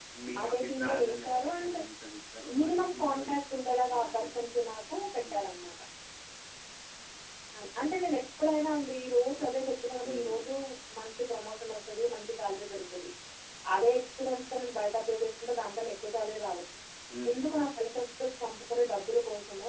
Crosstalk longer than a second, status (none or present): present